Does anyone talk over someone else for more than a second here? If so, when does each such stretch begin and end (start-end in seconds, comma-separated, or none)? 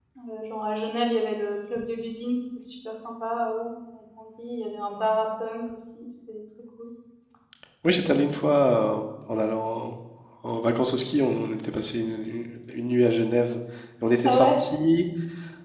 none